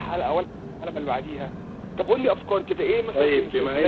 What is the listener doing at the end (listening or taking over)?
taking over